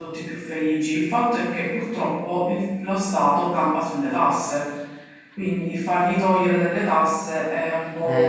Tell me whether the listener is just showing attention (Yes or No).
No